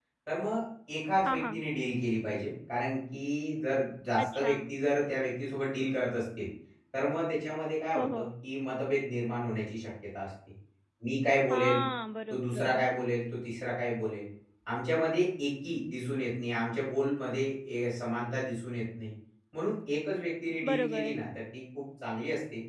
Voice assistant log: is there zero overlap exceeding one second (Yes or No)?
Yes